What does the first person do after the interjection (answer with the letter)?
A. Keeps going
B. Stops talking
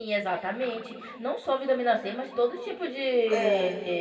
A